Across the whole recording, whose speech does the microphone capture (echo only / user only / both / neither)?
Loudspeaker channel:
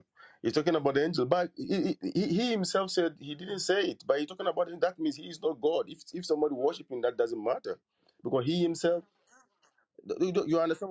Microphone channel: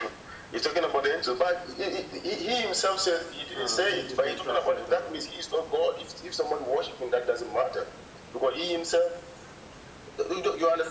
both